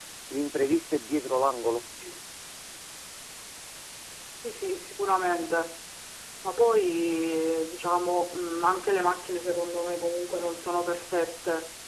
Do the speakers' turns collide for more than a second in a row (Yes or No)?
No